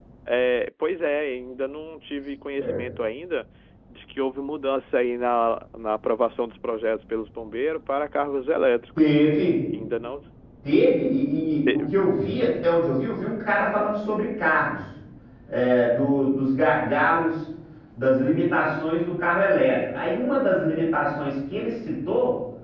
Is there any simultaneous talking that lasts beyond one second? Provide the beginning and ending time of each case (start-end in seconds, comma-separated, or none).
none